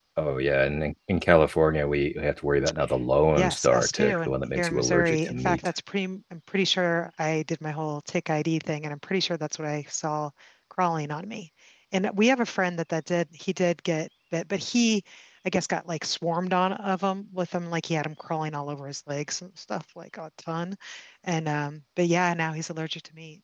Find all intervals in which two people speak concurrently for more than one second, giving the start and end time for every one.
3.4-5.6

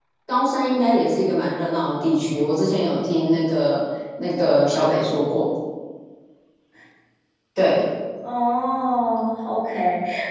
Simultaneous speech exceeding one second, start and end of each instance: none

